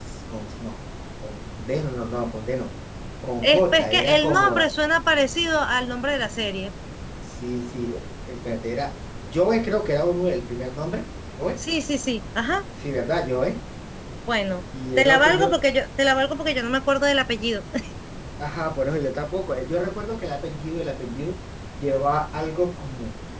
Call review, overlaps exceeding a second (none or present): present